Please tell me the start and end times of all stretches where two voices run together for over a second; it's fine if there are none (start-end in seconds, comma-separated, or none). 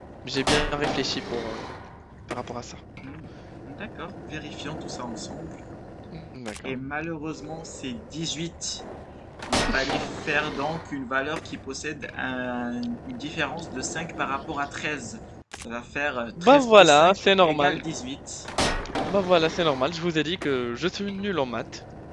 16.4-17.8